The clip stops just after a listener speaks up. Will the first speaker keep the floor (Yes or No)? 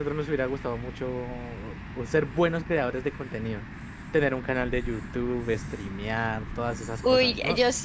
No